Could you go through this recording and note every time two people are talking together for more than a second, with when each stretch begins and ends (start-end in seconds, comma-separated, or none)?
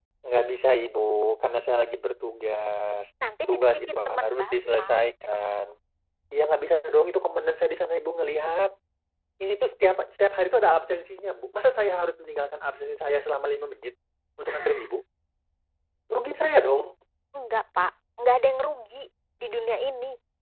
3.5-5.0